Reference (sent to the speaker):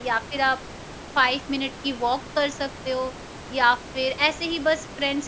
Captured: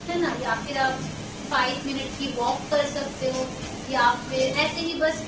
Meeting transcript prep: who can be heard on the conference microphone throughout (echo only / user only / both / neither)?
echo only